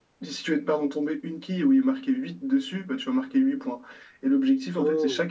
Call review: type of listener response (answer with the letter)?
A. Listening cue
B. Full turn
A